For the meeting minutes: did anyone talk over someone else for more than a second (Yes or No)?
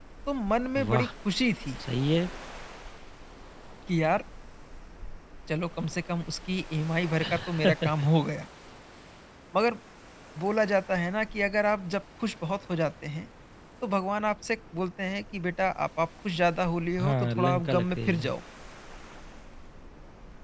Yes